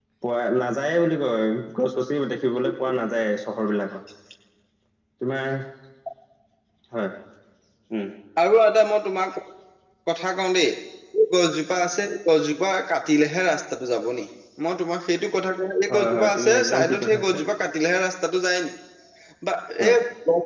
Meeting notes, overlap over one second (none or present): present